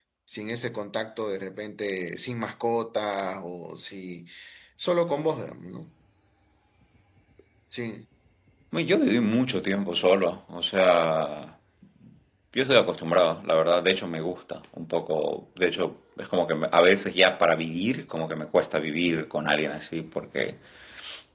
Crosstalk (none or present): none